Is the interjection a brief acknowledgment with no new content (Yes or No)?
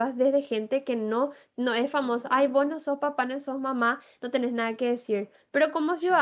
Yes